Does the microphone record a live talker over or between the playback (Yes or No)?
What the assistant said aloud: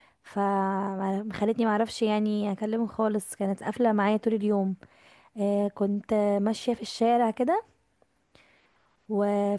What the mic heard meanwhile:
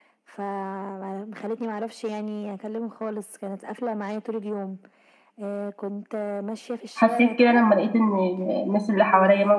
Yes